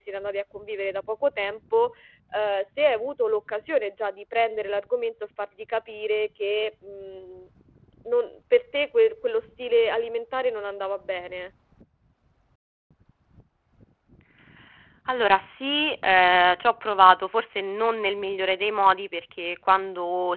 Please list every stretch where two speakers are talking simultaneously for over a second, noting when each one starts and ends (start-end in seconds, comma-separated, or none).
none